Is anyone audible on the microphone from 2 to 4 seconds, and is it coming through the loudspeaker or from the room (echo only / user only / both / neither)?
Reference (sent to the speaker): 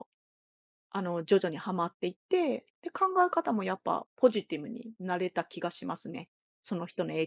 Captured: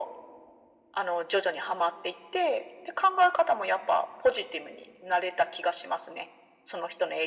echo only